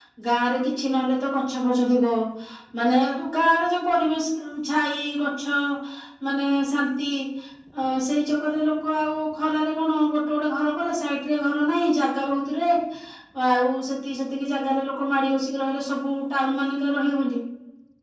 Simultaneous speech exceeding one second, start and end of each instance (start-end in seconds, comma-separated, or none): none